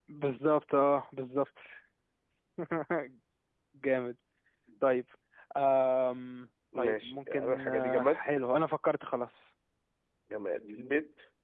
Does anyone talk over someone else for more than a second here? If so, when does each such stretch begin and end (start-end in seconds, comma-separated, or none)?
6.8-8.2